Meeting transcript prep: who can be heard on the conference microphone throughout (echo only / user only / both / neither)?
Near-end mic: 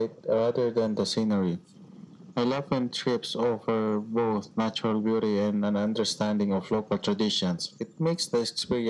echo only